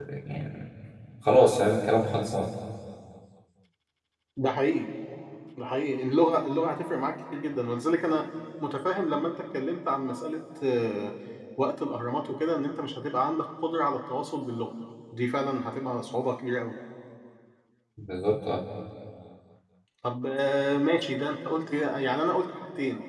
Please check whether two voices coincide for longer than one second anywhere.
No

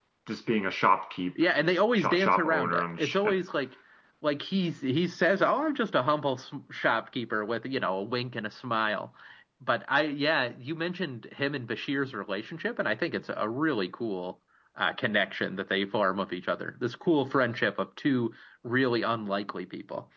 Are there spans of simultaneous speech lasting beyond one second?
Yes, from 2.0 s

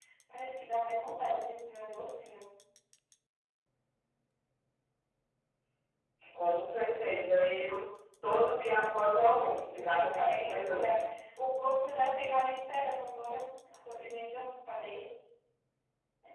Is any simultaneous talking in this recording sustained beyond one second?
Yes, from 9.2 s

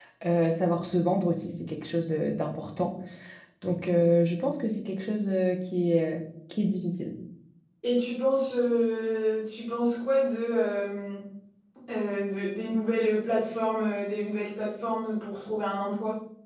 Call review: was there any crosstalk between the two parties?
No

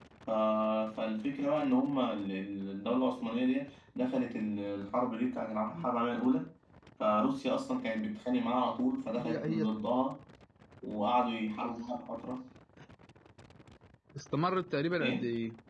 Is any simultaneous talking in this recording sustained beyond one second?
No

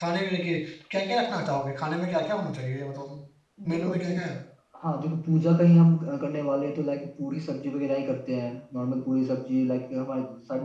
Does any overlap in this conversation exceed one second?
No

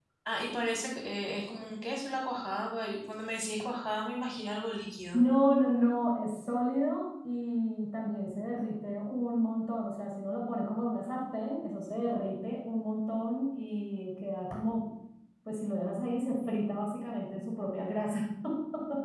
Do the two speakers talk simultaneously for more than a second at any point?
No

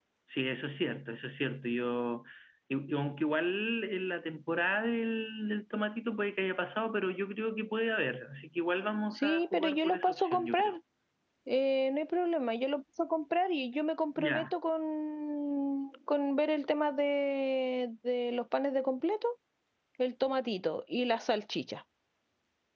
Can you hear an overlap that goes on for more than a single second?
Yes, from 9.2 s

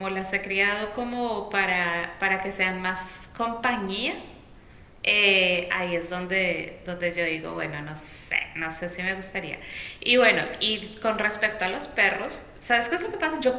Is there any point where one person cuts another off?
No

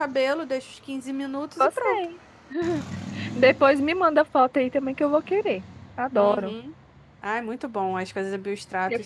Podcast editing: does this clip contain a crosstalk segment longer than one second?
No

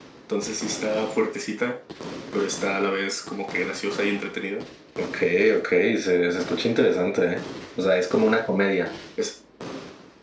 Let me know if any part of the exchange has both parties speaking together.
No

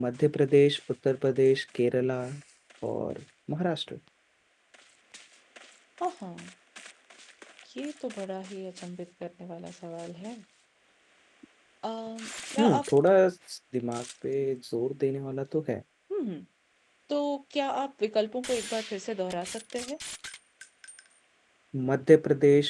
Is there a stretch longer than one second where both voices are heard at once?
No

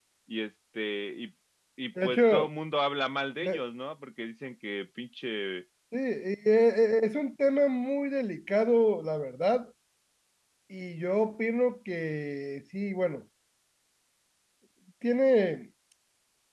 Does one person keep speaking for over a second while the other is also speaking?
No

